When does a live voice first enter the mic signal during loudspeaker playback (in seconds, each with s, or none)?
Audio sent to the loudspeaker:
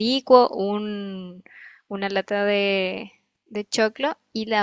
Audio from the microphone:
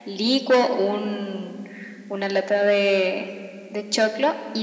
none